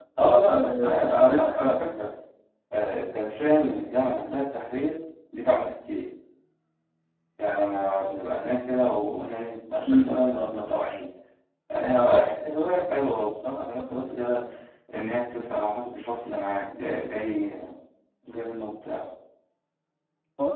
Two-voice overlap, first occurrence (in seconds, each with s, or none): 0.5 s